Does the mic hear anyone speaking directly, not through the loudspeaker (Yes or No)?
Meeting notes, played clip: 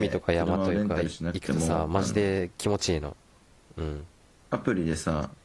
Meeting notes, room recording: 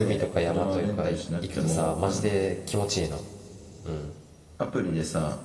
No